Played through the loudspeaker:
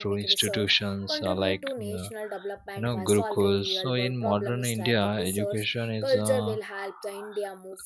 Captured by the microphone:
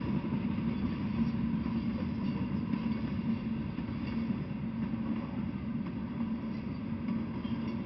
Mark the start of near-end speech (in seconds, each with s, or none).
none